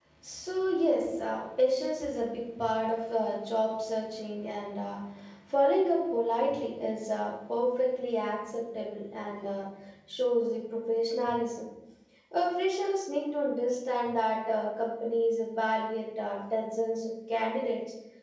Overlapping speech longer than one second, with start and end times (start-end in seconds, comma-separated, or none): none